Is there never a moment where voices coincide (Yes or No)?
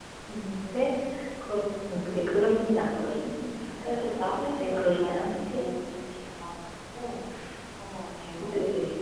No